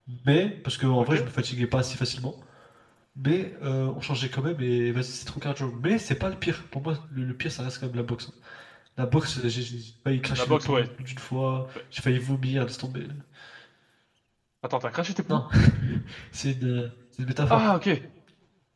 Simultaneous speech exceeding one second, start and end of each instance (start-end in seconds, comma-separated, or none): none